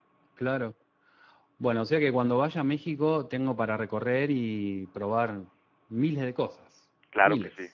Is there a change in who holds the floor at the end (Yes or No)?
Yes